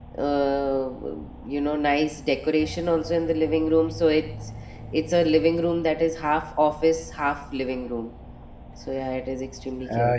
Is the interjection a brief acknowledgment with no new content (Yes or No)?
No